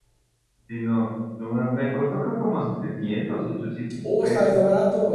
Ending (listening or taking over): taking over